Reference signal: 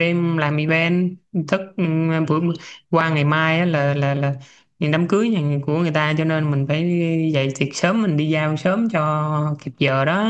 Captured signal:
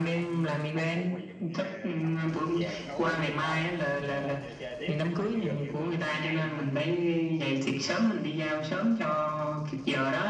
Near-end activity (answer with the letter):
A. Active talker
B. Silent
A